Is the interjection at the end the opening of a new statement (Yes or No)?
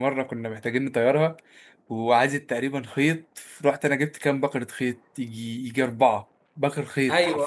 No